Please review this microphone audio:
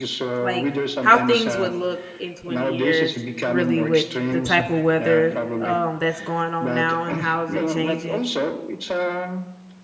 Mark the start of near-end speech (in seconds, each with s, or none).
0.4 s